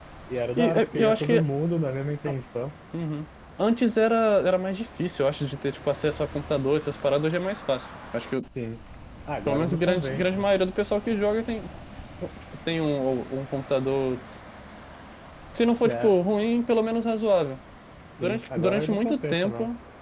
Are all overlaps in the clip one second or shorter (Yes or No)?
No